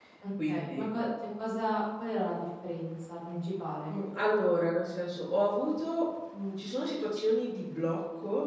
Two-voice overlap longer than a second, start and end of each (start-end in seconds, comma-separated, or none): none